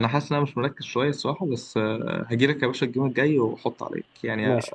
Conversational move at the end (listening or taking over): taking over